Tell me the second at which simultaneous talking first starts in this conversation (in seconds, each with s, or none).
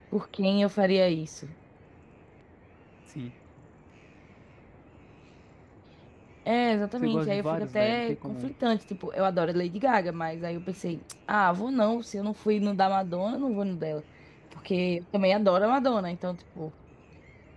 7.0 s